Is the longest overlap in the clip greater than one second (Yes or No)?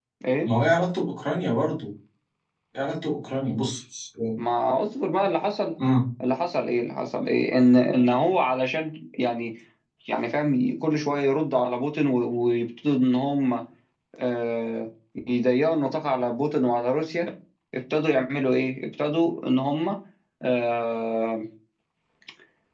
No